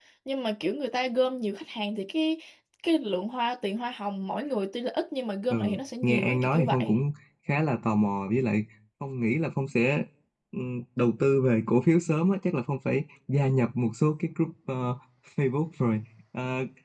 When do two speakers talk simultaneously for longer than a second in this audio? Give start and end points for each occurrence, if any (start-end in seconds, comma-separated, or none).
5.5-6.9